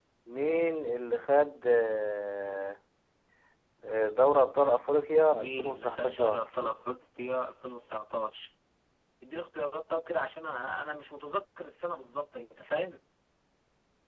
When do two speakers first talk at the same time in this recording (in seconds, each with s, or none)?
5.3 s